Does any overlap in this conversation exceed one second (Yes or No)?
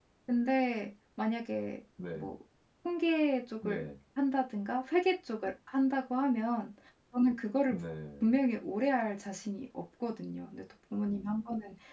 No